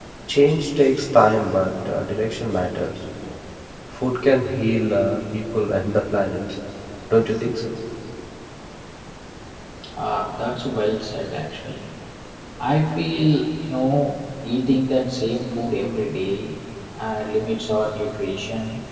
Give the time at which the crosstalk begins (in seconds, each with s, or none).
none